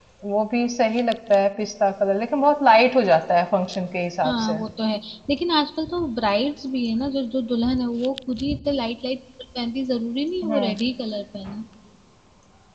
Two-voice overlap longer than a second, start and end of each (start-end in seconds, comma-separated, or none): none